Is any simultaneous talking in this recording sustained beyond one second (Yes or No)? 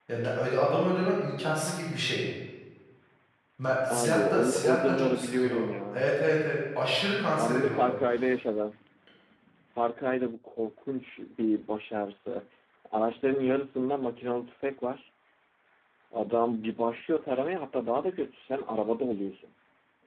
Yes